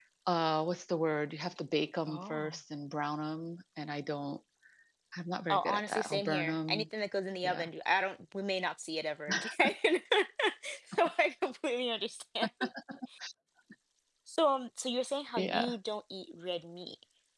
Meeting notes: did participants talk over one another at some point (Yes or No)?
Yes